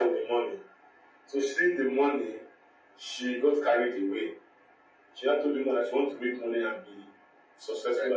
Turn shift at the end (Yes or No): No